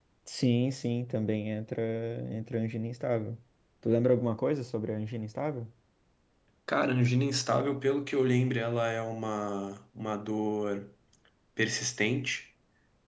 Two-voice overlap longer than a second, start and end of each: none

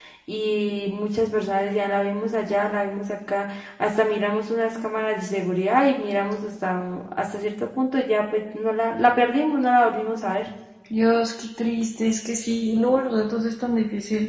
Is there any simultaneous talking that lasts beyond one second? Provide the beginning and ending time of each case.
none

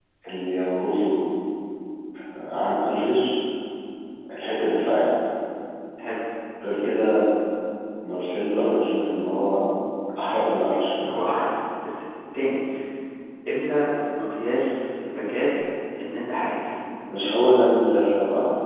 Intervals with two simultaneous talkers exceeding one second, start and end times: none

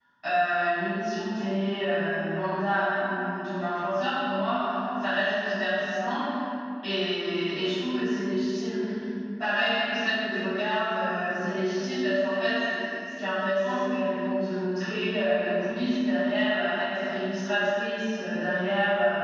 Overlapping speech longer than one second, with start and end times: none

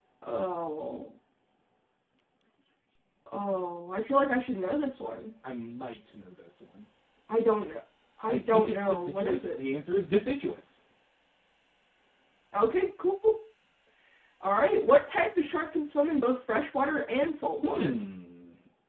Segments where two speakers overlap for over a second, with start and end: 8.3-9.6

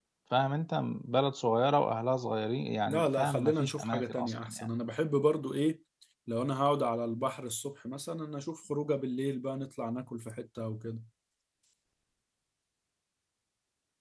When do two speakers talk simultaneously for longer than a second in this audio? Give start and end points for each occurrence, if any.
2.9-4.7

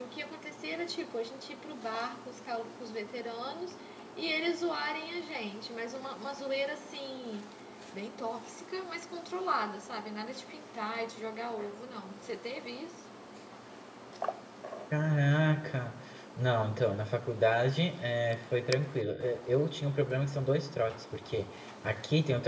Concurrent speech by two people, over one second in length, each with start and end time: none

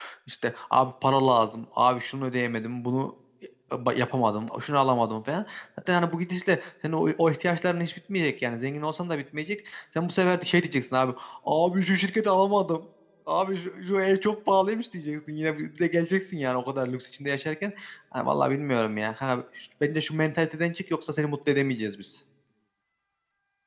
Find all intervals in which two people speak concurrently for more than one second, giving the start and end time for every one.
none

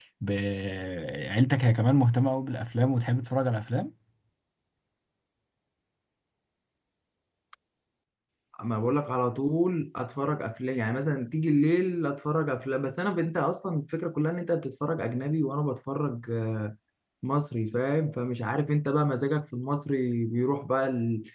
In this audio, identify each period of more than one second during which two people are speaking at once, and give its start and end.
none

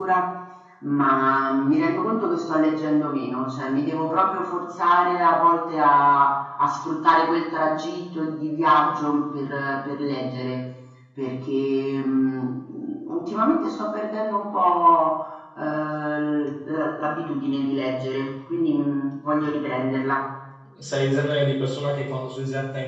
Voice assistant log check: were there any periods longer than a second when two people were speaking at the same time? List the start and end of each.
none

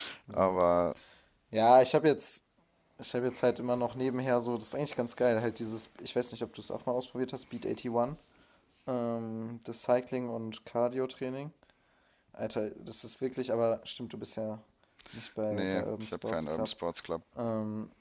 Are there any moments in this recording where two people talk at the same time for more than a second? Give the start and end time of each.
15.5-16.7

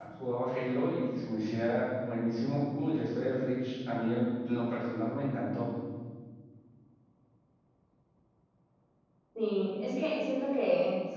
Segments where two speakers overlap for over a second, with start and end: none

